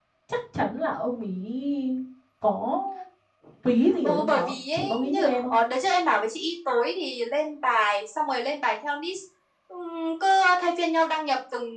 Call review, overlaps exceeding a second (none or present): present